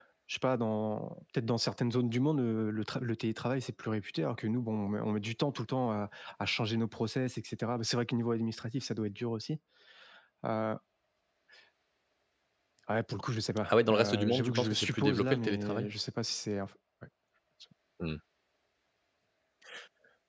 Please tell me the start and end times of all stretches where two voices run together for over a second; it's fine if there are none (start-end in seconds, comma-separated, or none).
13.6-15.9